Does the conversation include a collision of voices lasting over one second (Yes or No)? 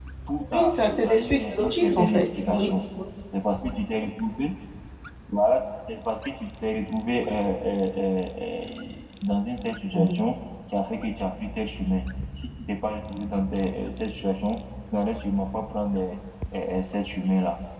Yes